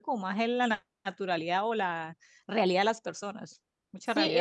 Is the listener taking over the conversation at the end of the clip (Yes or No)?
Yes